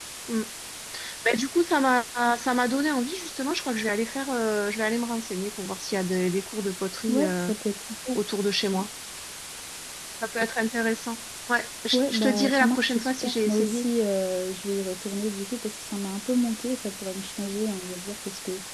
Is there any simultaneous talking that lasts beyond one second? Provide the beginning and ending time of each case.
11.9-13.8

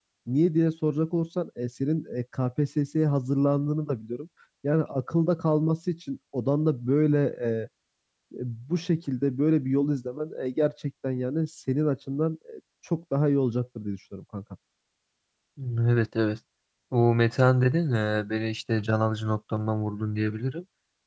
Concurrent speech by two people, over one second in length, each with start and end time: none

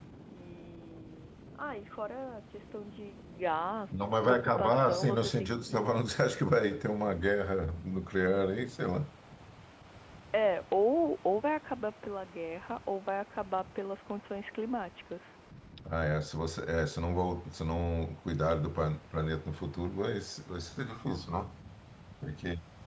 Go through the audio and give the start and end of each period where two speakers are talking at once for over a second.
4.0-6.0

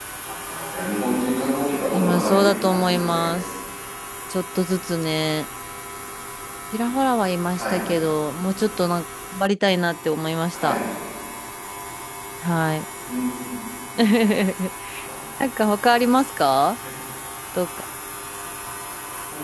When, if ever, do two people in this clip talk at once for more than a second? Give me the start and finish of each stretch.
1.9-3.3

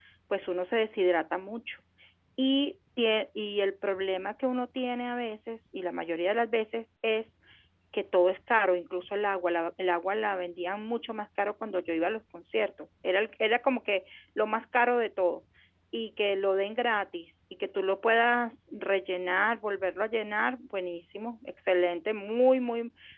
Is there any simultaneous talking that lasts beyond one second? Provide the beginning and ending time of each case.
none

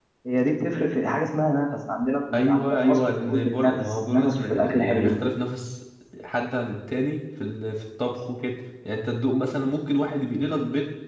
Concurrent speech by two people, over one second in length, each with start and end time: 2.3-5.2

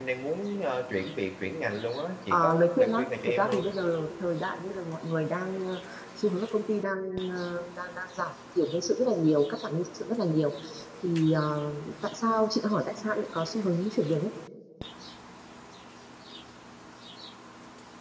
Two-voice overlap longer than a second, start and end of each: 2.3-3.7

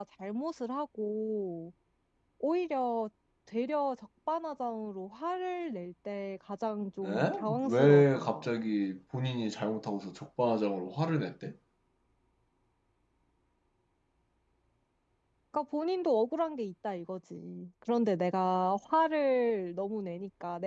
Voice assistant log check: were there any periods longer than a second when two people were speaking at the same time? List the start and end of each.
7.0-8.5

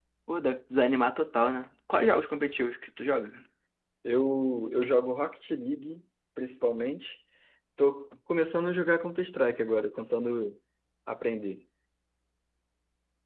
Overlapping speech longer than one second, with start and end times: none

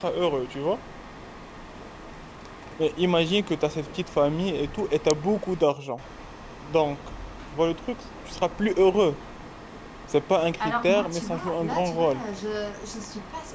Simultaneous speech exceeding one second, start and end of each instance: 10.6-12.2

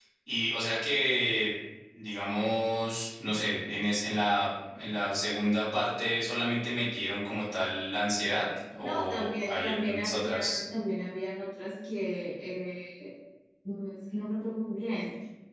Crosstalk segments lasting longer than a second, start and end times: 8.8-10.6

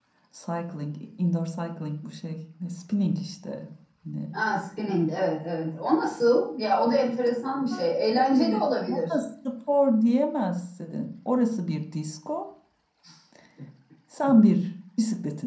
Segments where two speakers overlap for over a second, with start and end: 7.7-9.1

